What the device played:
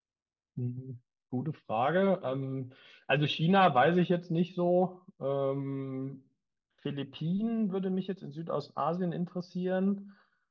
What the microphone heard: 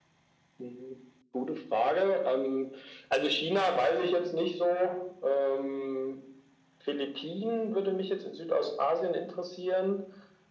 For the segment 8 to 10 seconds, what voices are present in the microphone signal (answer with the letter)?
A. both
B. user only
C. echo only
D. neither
C